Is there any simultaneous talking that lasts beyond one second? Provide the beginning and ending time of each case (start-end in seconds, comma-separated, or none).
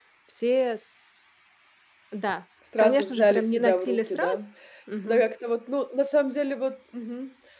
2.8-4.4